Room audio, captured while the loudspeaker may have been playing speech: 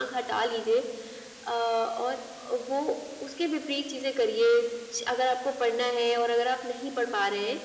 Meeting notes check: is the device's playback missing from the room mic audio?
No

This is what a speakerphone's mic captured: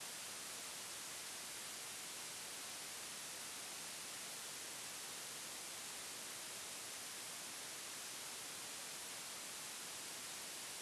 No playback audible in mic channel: Yes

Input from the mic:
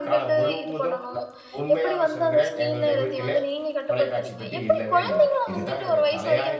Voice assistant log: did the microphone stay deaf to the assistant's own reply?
No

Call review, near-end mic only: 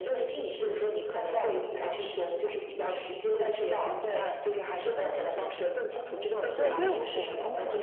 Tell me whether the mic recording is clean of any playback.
No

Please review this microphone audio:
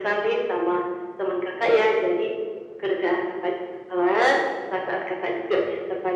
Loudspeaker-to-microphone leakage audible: Yes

